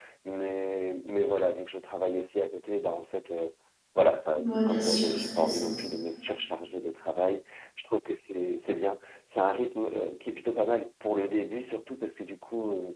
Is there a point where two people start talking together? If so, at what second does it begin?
4.4 s

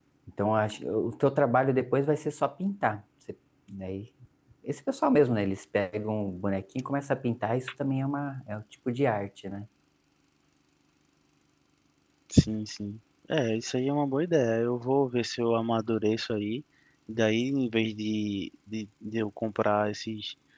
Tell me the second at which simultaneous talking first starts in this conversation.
none

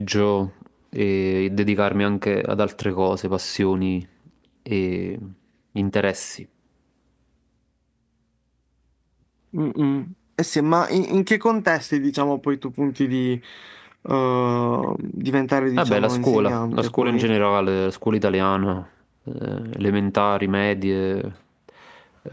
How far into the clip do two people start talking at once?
15.8 s

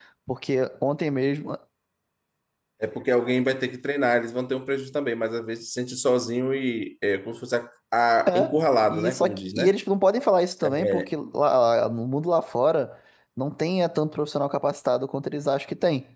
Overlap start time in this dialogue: 8.3 s

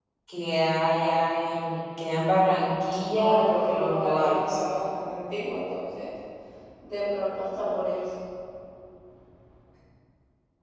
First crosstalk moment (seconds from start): 3.1 s

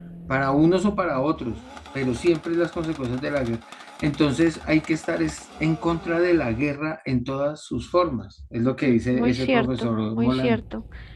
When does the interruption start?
8.8 s

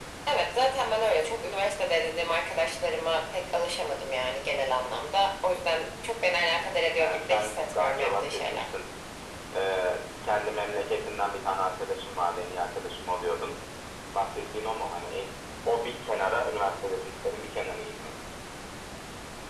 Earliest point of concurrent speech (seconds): 7.0 s

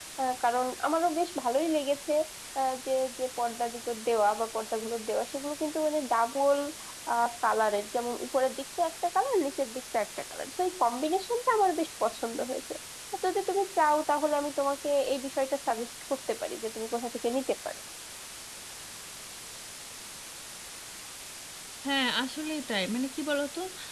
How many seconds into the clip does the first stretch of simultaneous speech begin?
none

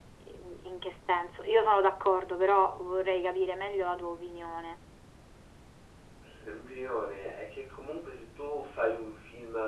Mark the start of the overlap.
none

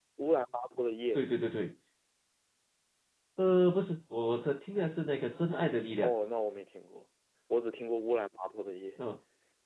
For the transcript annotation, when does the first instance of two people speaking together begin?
none

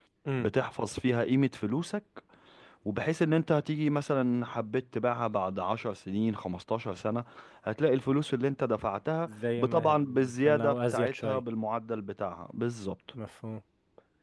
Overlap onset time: 9.7 s

